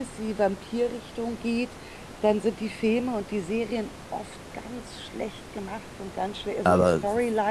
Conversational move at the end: listening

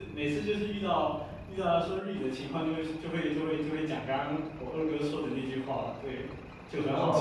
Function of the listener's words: taking over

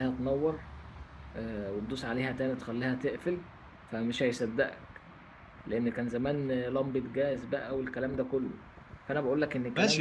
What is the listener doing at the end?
taking over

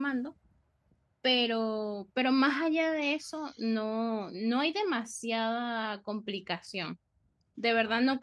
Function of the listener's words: listening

